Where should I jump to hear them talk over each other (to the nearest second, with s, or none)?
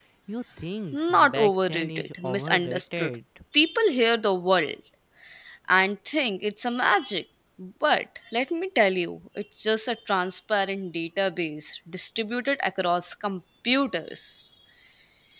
1 s